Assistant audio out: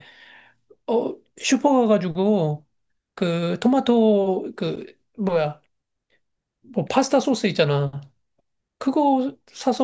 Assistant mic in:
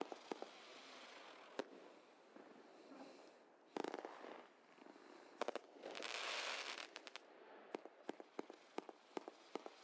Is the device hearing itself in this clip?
No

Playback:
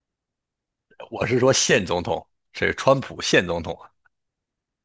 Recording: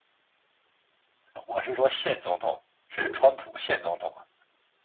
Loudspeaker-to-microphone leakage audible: Yes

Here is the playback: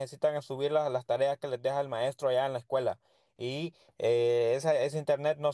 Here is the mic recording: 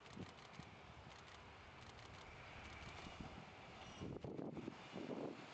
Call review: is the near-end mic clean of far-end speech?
Yes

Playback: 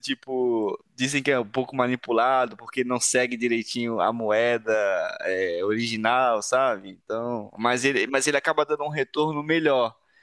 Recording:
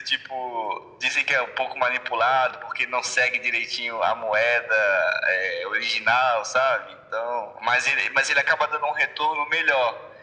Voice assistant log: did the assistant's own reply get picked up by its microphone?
Yes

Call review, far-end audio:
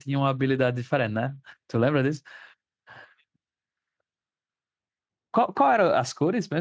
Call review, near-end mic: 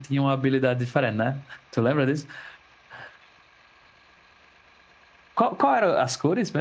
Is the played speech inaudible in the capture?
No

